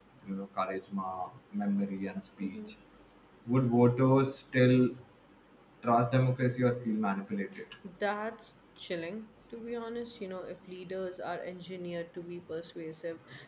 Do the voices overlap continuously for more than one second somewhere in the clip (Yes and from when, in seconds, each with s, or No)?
No